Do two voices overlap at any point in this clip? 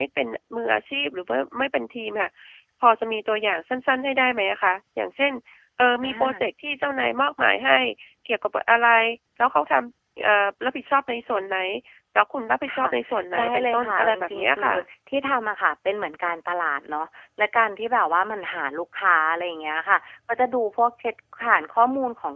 Yes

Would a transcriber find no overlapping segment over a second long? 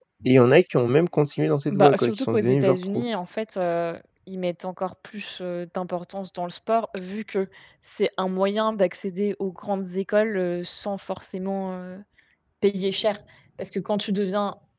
No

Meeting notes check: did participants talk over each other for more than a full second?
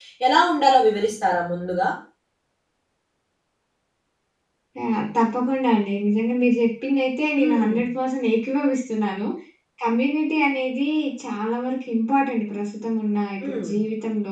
No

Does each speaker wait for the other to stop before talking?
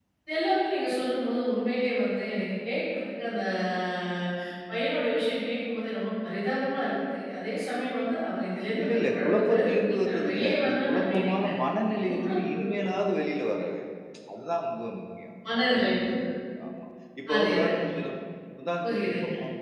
No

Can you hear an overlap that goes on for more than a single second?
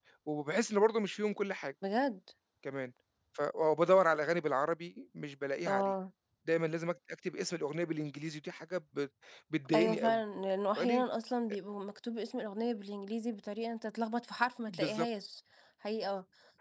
No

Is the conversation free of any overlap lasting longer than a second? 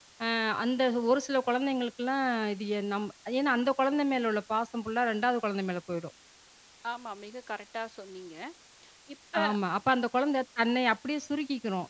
Yes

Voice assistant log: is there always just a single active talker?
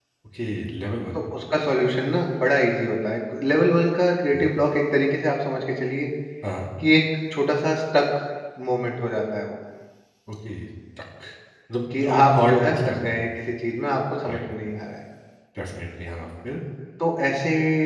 No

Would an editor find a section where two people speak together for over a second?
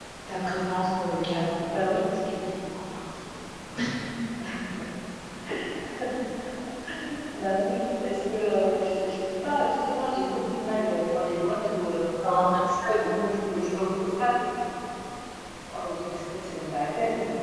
No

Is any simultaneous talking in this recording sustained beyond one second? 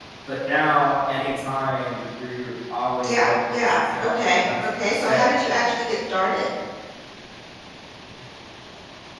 Yes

